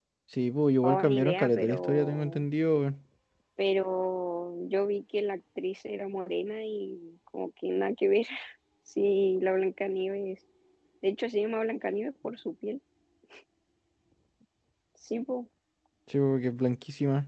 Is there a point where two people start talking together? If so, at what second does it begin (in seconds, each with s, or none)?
0.8 s